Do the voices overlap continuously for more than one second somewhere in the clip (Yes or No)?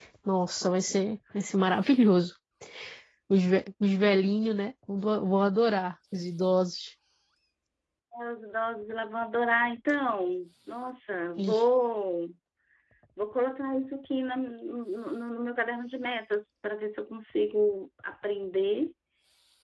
No